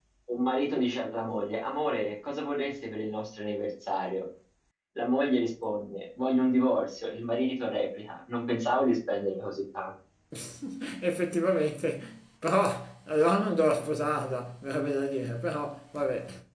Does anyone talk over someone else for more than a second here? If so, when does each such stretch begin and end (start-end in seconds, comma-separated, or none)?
none